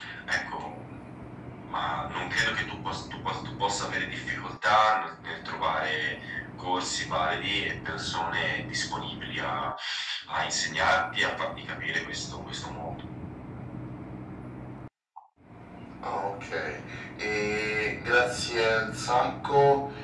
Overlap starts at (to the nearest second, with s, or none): none